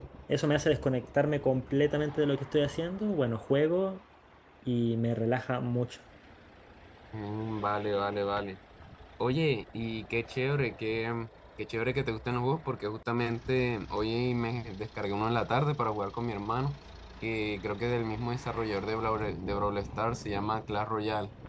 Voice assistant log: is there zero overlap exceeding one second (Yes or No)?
Yes